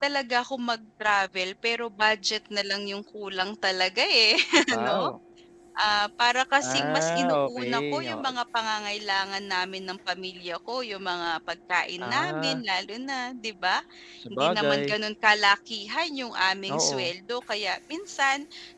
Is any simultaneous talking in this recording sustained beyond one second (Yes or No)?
Yes